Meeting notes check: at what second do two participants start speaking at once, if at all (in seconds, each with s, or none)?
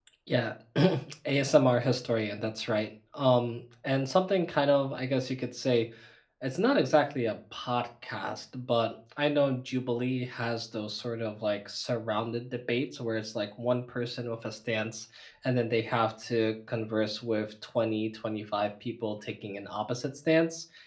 none